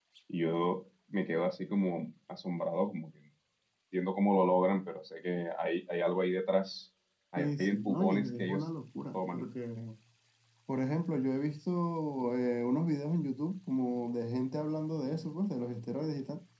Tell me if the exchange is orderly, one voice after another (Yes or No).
No